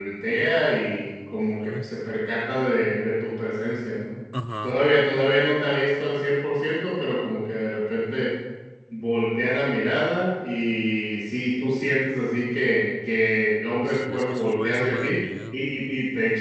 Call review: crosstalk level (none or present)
present